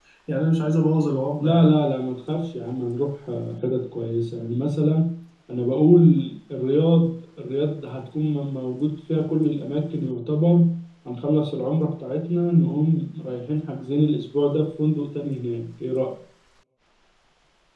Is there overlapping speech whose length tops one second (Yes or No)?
No